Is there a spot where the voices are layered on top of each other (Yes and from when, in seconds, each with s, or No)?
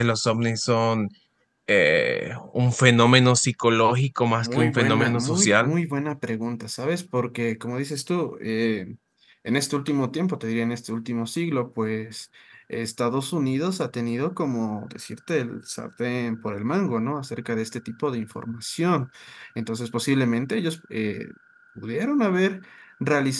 Yes, from 4.4 s